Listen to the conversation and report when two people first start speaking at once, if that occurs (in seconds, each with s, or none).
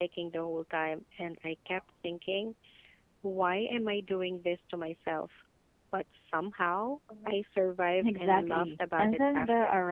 8.0 s